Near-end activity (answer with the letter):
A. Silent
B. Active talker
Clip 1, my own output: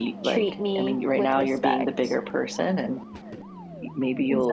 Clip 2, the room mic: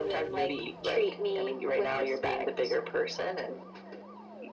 A